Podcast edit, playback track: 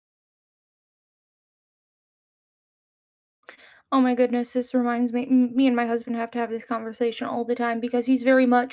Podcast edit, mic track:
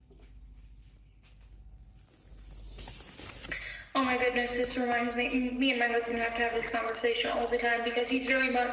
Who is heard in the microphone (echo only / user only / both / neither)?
echo only